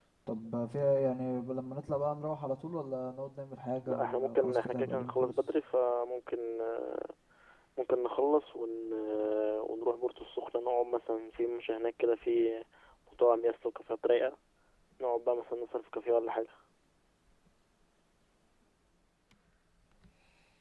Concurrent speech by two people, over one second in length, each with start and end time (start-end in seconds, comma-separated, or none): 3.9-5.5